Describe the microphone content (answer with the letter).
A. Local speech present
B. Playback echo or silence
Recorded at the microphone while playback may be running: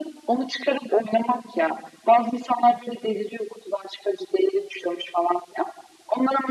B